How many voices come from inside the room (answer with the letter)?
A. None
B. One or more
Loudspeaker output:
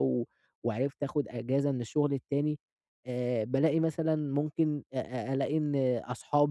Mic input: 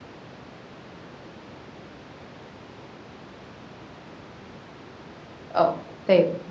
B